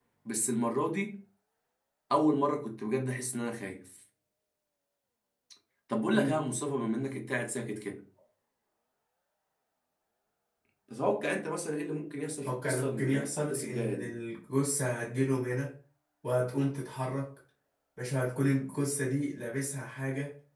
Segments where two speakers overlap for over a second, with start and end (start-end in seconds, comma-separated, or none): 12.4-14.2